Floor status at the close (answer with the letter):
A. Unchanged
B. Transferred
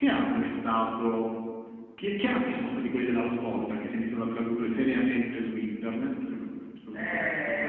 B